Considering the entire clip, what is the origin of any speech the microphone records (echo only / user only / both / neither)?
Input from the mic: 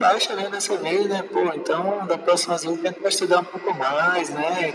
echo only